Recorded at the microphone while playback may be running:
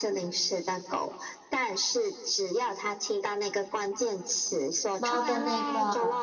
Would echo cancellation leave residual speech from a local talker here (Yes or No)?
Yes